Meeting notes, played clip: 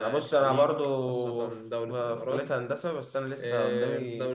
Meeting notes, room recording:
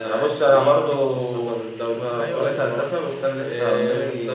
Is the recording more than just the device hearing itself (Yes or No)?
Yes